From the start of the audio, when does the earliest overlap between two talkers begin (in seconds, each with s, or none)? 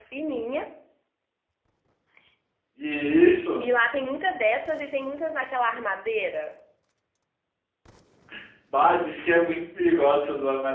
none